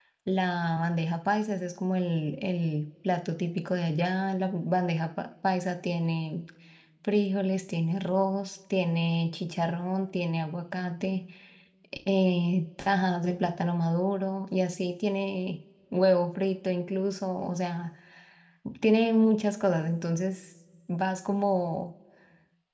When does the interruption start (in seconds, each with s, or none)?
none